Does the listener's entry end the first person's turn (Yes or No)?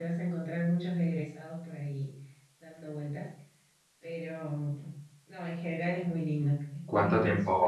Yes